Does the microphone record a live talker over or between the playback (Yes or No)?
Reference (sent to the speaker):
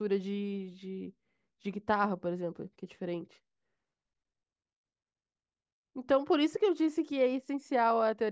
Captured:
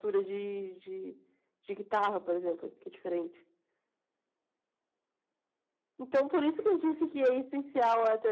No